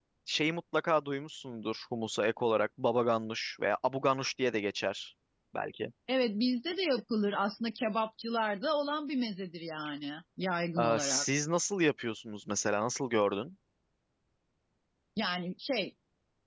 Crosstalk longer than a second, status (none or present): none